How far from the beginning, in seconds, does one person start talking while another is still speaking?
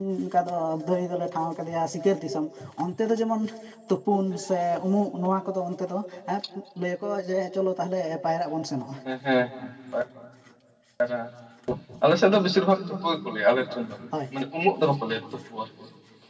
none

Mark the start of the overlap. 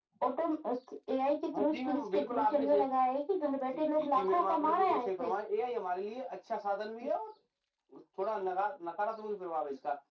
1.5 s

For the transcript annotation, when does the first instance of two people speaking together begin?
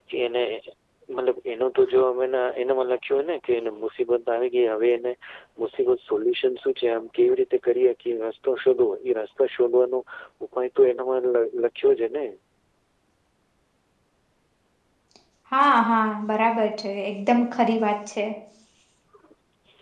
none

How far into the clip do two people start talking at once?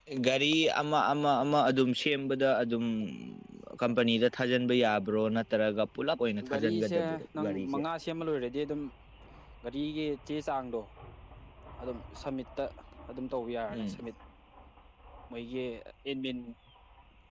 6.5 s

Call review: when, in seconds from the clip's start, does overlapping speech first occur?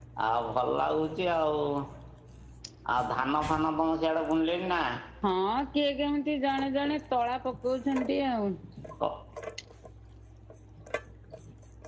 none

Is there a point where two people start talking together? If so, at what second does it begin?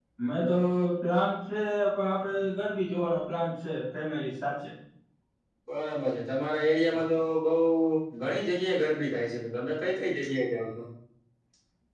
none

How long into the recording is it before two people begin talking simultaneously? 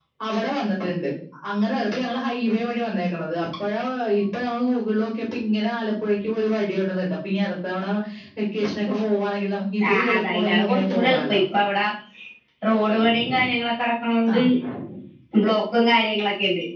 9.9 s

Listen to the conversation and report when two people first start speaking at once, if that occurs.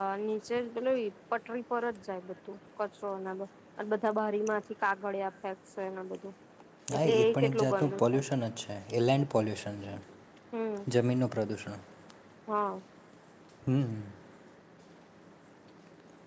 7.0 s

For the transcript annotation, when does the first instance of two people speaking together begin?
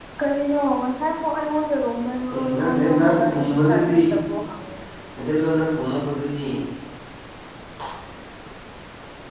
2.3 s

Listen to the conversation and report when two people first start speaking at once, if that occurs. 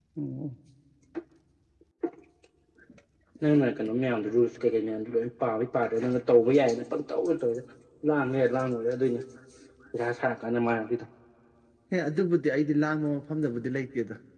none

